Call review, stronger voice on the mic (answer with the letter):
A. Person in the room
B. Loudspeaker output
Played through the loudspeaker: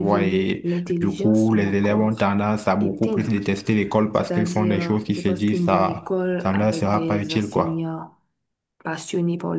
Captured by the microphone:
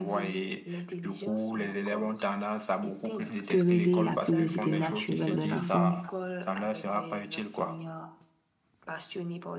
A